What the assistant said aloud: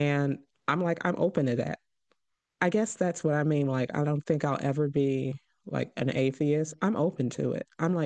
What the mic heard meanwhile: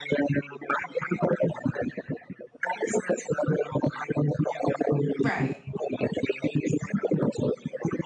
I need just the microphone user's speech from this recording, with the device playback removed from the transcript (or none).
Right.